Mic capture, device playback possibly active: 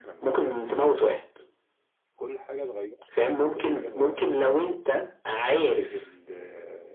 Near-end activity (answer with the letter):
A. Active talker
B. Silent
A